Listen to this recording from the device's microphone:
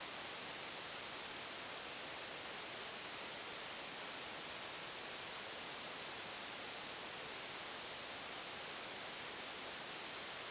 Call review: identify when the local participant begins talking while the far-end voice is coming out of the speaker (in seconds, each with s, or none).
none